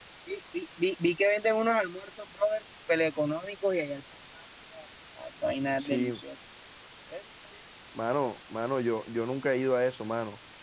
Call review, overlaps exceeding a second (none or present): none